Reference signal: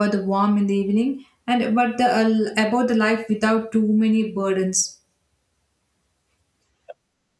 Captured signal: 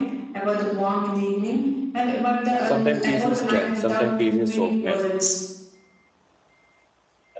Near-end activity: present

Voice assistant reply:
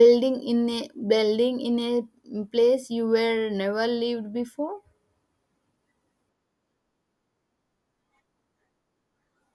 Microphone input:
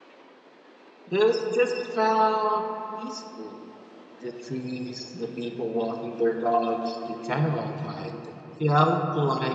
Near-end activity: present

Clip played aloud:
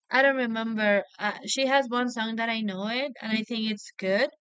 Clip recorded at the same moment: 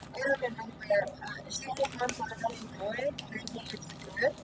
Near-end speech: none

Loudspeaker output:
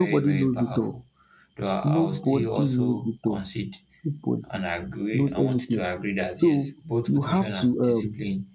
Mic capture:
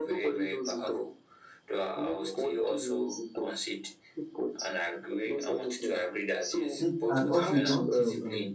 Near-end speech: present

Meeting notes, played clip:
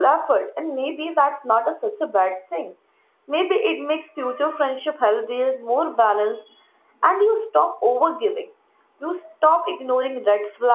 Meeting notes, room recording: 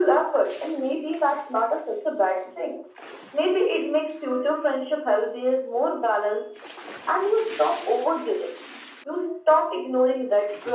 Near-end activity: none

